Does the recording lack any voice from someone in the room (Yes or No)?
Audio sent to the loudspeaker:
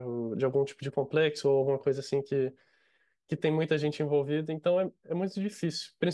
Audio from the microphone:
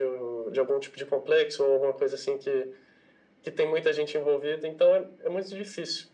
Yes